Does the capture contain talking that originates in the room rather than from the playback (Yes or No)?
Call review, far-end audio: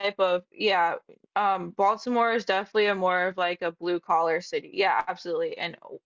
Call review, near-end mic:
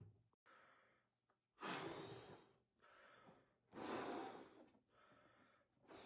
No